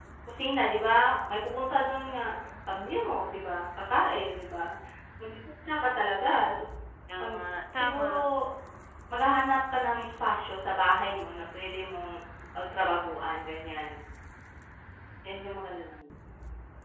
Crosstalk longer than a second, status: none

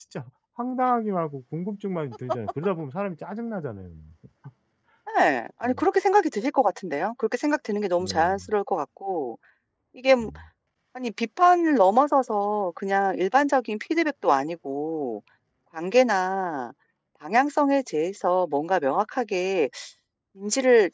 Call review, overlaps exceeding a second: none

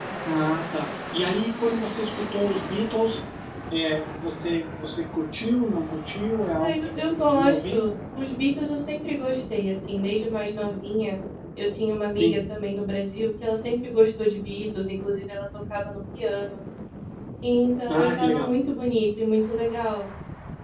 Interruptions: present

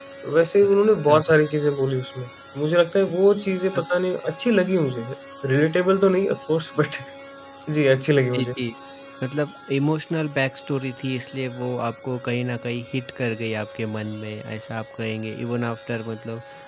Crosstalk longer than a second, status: none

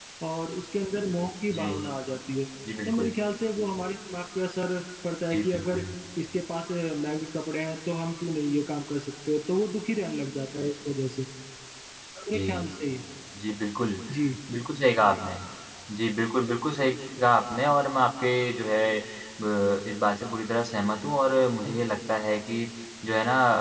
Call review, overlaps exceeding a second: none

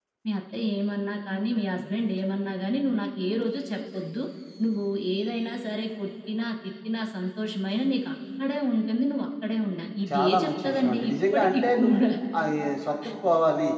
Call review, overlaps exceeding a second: present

